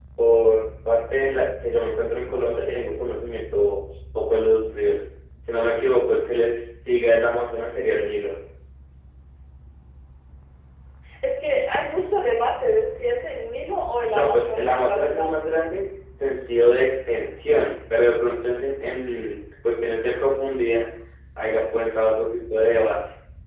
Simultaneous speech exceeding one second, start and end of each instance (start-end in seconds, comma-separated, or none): 14.1-15.3